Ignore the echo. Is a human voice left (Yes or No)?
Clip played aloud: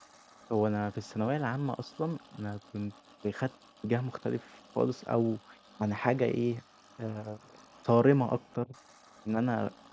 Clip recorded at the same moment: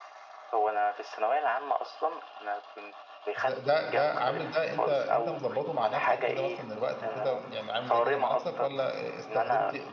Yes